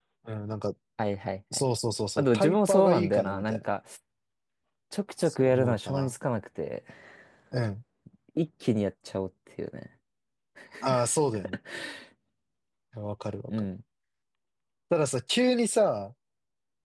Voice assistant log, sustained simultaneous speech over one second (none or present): present